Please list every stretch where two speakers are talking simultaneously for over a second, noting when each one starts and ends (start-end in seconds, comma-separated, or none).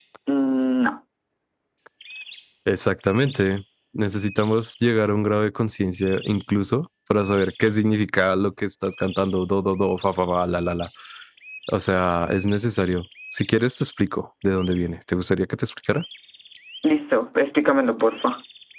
none